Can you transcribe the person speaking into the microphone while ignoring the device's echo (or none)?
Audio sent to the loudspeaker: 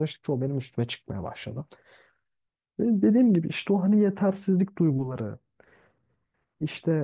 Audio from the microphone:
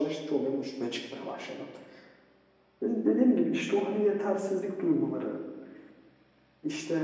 none